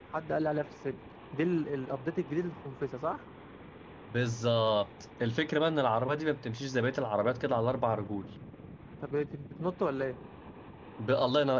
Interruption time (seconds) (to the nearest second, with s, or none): none